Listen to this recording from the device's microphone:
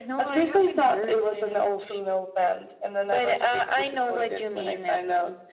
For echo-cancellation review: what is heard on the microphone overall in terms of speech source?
echo only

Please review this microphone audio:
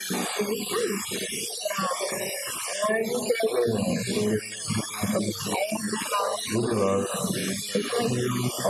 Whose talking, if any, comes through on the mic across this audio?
echo only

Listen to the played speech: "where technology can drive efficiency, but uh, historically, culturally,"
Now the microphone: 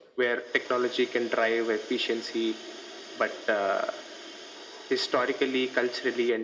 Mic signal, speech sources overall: echo only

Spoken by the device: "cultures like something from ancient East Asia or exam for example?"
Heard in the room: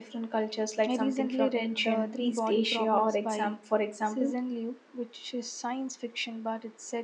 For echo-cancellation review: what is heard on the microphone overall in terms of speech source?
both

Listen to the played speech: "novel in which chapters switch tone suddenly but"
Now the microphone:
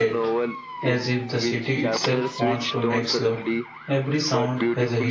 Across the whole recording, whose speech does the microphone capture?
both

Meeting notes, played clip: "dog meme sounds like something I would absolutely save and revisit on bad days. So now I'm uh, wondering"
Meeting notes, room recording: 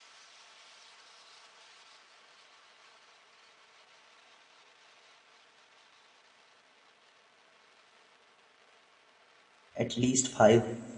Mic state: user only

